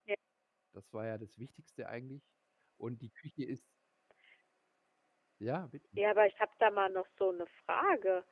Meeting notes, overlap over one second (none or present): none